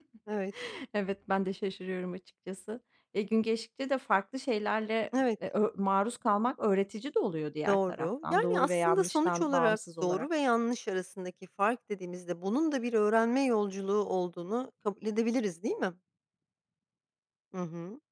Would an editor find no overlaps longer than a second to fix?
No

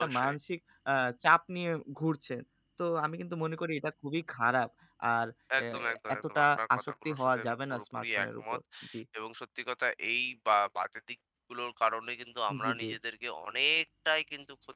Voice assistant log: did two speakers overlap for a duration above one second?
Yes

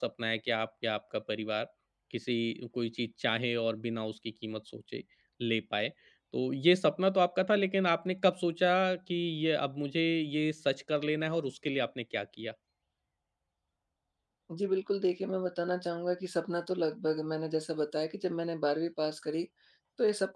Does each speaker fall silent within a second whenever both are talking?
Yes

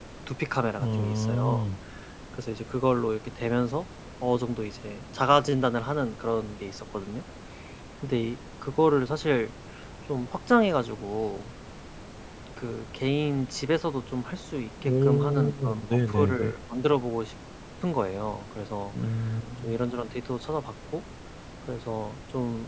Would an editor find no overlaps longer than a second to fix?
No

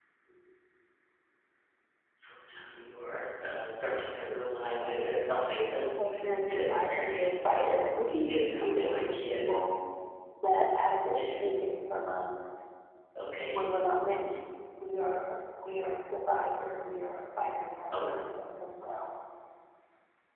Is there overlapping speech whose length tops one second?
Yes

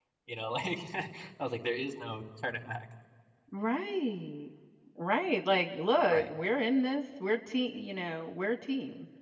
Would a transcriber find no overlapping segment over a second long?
Yes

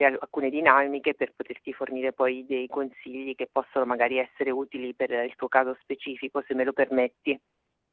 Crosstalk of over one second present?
No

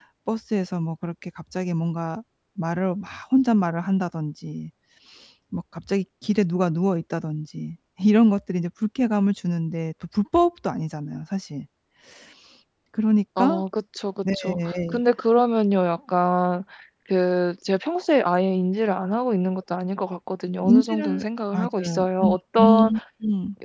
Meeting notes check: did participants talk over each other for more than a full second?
Yes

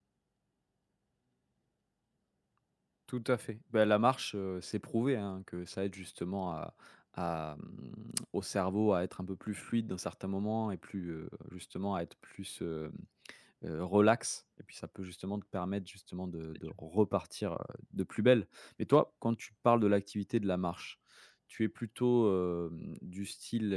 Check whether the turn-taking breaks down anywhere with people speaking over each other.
No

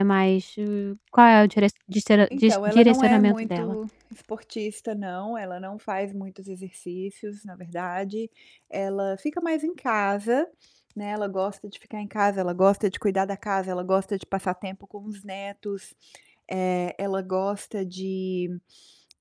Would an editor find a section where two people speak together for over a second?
Yes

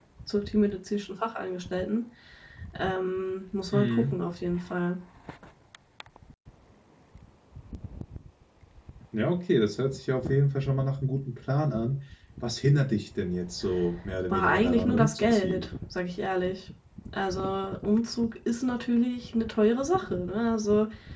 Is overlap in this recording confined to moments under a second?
No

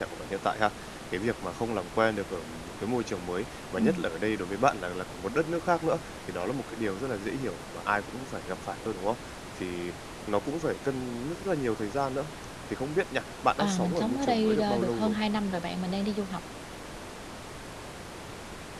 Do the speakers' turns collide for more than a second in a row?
Yes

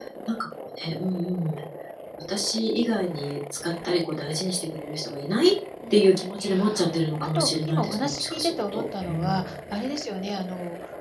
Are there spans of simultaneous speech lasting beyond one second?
Yes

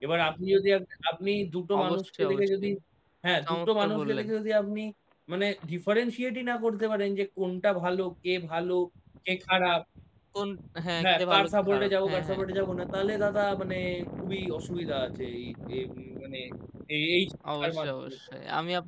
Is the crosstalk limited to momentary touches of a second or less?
No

